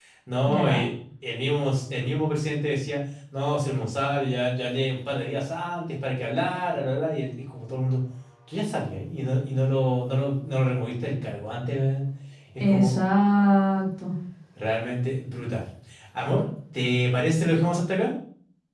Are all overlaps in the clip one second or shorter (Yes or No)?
Yes